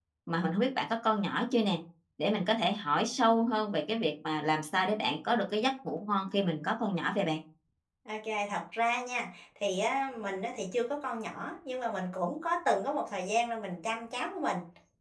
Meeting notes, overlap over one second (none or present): none